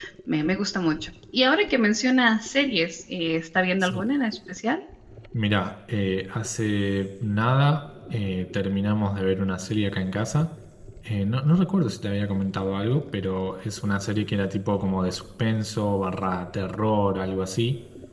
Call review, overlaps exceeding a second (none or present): none